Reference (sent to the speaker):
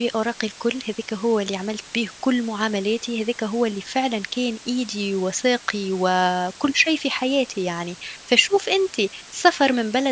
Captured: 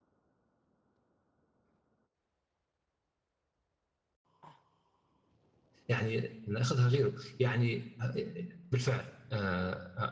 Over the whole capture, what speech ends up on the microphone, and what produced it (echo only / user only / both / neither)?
user only